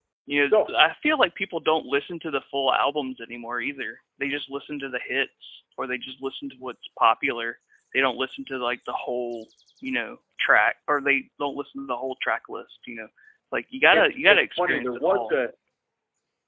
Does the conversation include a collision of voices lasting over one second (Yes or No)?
Yes